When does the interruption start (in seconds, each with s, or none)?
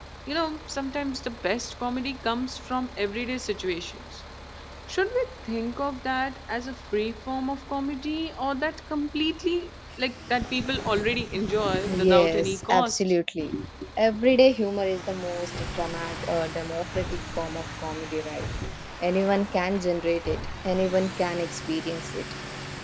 11.7 s